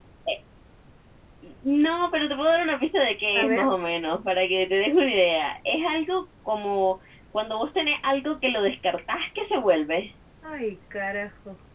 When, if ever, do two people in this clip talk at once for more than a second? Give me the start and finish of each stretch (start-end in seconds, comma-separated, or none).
none